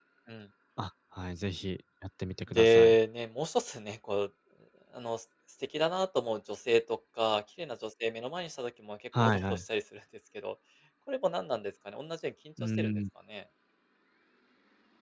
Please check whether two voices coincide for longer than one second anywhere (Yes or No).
No